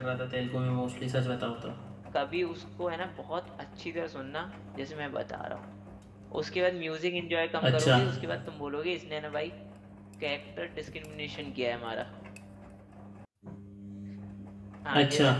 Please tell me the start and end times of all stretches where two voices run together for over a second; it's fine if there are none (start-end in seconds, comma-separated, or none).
none